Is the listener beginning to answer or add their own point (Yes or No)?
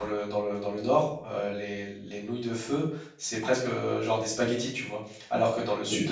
No